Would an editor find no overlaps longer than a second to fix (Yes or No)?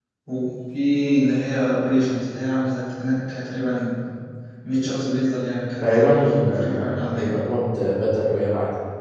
No